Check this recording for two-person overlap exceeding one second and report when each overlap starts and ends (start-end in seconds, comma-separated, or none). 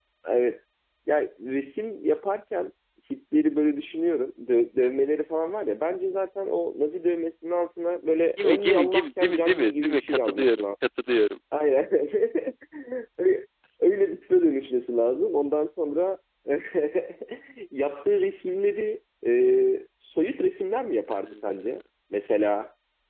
8.4-10.6